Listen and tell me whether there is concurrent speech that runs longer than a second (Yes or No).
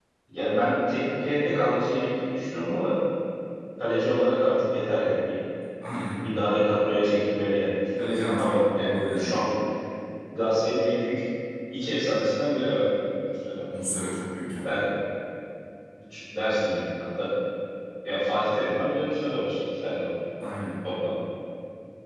Yes